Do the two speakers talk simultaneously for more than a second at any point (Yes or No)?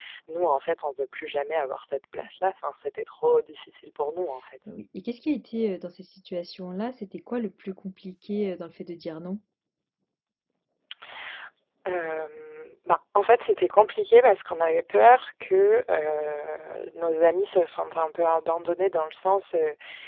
No